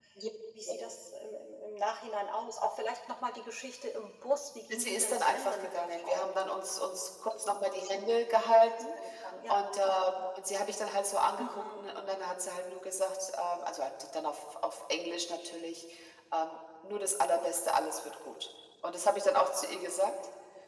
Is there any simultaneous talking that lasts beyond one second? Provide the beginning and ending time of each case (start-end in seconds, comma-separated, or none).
4.8-6.3